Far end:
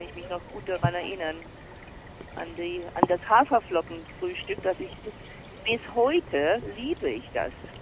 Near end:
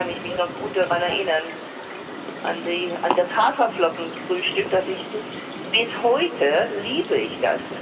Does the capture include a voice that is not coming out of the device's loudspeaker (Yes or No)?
No